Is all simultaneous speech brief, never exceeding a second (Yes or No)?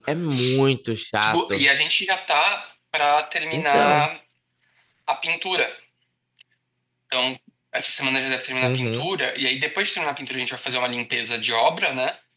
Yes